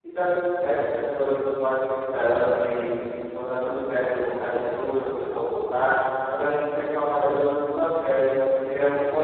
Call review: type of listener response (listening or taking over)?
listening